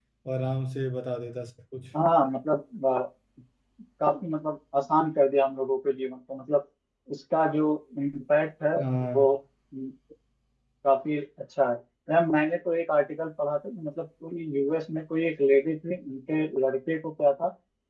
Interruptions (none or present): none